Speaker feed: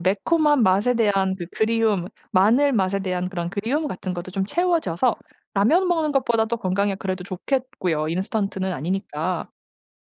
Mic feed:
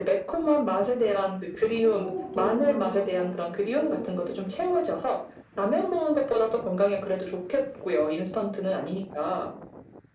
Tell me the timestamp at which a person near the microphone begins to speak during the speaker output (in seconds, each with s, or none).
1.8 s